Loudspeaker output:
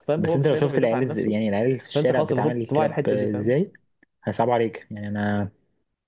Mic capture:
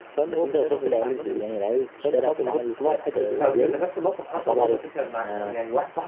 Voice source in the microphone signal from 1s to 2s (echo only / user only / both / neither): echo only